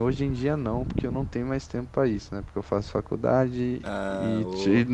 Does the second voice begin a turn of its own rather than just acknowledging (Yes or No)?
No